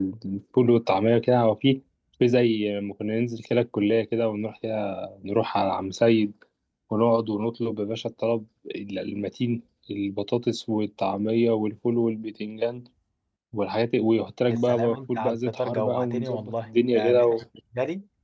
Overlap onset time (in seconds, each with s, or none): 14.5 s